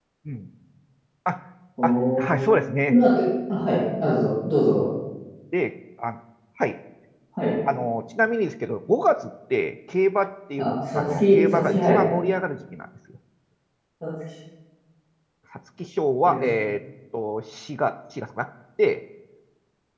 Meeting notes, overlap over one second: present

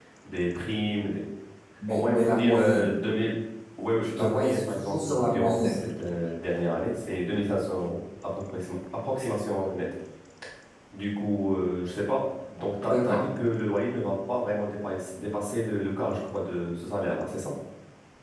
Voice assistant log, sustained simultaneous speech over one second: present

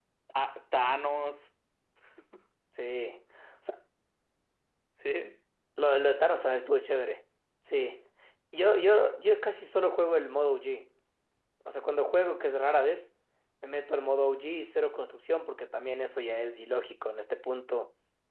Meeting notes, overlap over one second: none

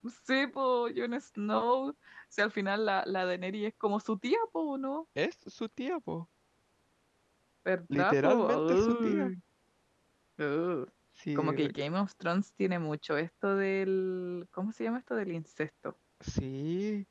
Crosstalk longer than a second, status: present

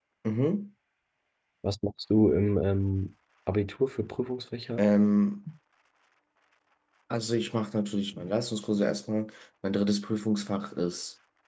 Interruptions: none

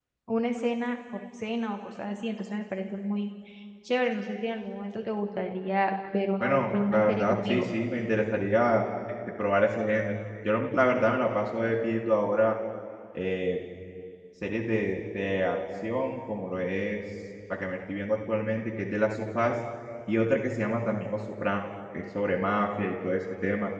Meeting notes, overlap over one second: present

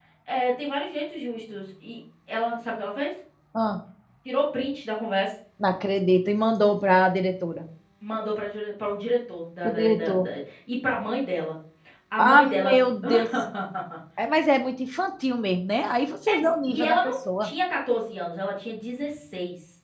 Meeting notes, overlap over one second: present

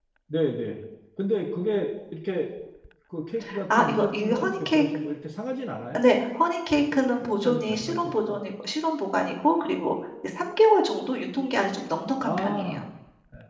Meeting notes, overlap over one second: present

